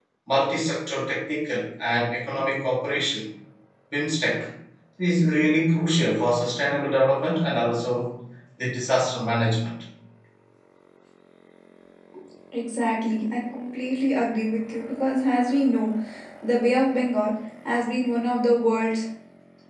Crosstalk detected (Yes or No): No